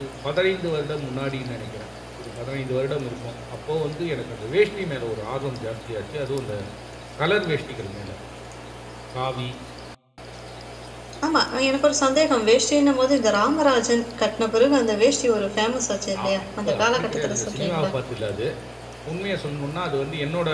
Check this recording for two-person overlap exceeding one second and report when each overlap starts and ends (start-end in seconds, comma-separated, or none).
16.2-17.9